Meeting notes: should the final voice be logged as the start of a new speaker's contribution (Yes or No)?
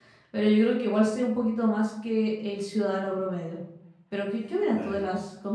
No